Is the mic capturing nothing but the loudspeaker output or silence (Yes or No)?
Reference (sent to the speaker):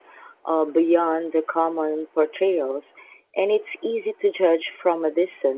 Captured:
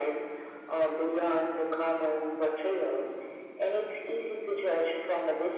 Yes